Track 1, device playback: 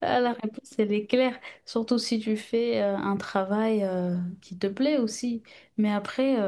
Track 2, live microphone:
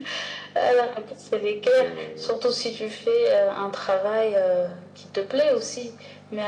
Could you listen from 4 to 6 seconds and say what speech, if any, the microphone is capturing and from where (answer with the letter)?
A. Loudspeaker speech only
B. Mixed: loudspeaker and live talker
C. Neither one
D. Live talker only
A